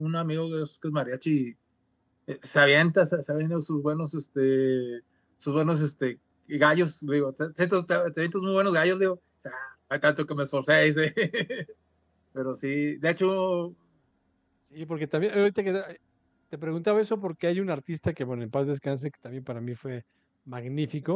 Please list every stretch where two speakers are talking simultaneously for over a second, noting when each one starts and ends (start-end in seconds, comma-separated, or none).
none